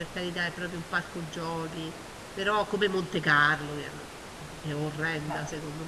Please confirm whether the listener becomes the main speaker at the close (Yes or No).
No